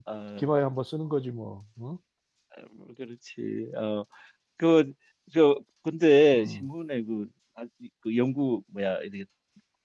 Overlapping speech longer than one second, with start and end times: none

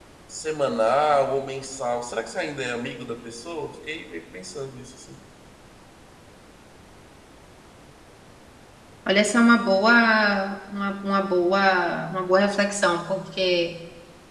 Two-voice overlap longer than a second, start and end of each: none

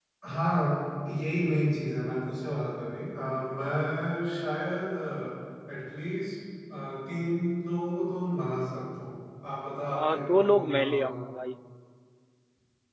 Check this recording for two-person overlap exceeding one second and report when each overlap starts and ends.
9.9-11.2

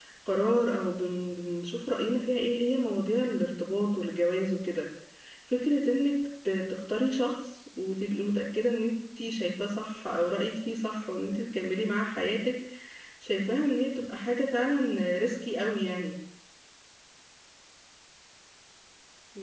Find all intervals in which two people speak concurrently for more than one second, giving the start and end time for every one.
none

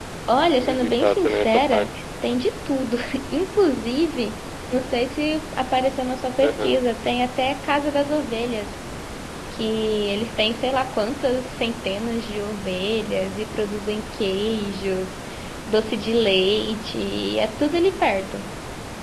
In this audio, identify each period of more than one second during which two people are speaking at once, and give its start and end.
0.5-1.9

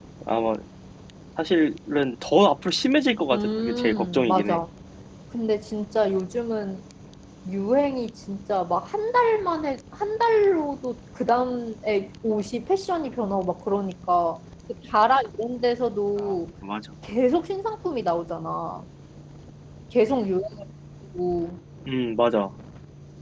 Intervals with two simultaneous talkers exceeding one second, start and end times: 3.3-4.6

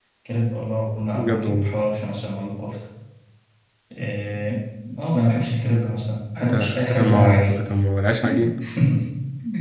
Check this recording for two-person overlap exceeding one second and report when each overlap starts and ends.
6.4-7.6

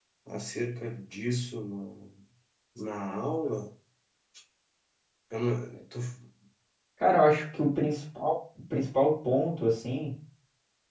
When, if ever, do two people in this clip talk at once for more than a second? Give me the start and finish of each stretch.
none

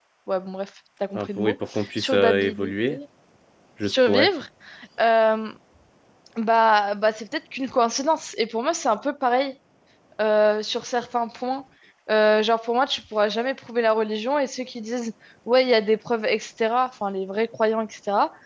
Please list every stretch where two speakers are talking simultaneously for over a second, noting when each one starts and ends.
1.2-3.0

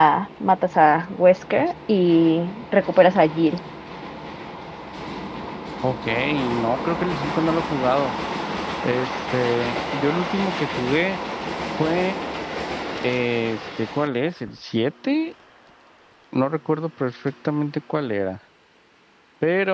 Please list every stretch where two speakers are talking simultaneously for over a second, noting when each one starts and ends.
none

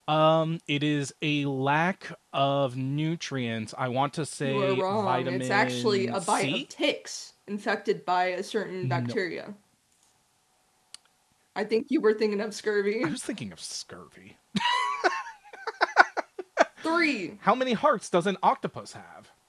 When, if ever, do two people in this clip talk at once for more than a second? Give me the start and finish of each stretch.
4.4-6.6

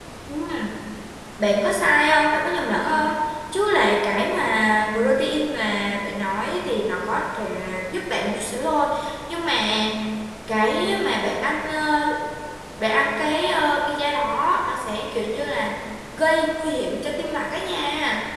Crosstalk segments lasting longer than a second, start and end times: none

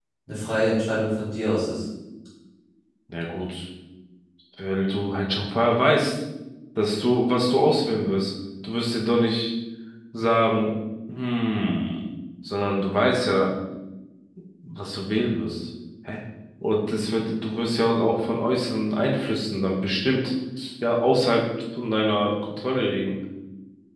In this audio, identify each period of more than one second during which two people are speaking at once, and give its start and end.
none

